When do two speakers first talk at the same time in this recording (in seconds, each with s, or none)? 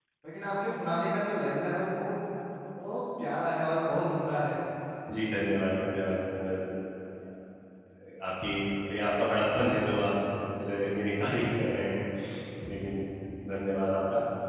none